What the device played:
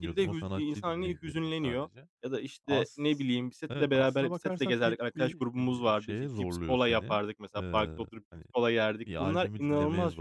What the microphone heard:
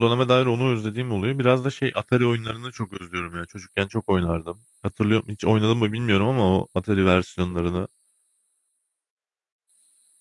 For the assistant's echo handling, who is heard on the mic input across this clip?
user only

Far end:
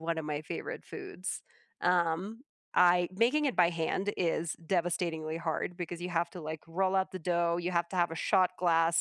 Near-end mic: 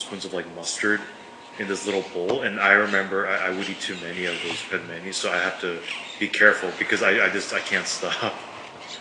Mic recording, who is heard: user only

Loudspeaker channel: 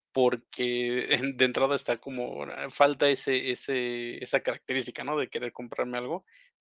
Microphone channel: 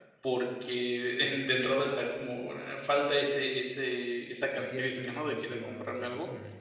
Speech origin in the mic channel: both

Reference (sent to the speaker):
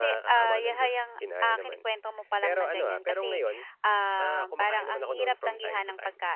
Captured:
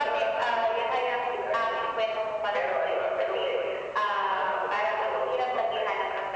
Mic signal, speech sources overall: echo only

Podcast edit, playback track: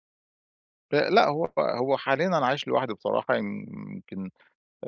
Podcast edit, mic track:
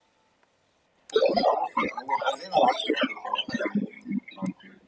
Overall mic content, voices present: echo only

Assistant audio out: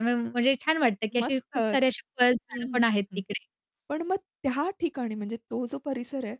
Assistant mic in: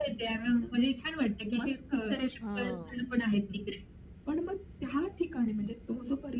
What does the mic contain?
both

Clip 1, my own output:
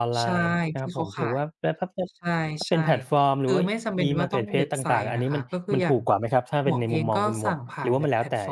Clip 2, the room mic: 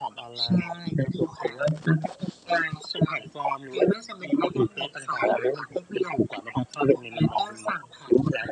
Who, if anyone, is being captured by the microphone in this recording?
echo only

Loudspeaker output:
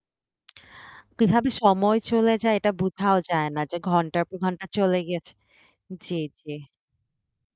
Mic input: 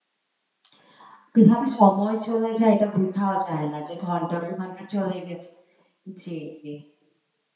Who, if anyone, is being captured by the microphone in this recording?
echo only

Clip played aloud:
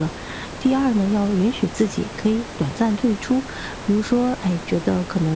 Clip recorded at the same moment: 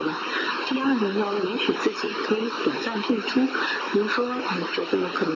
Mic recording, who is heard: echo only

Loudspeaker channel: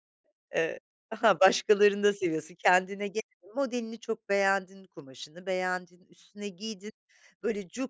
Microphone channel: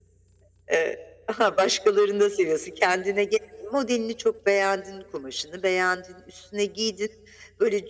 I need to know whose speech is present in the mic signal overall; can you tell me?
echo only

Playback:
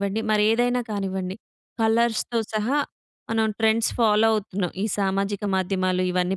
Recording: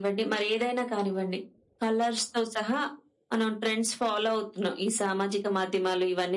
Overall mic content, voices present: echo only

